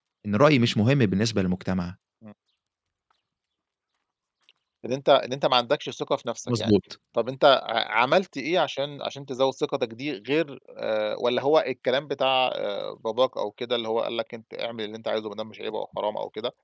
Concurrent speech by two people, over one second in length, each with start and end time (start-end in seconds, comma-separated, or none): none